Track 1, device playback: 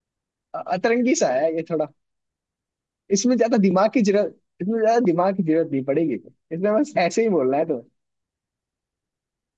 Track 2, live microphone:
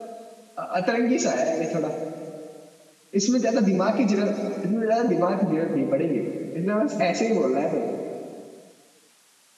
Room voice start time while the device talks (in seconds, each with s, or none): none